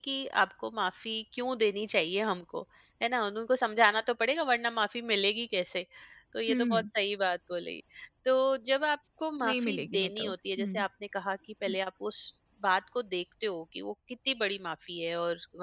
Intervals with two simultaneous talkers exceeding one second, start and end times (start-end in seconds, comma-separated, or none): 9.4-10.7